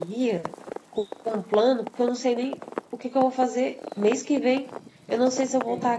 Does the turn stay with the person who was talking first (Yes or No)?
Yes